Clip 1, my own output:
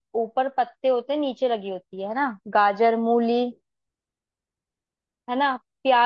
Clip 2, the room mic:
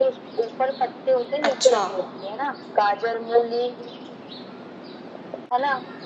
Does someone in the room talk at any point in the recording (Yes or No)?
Yes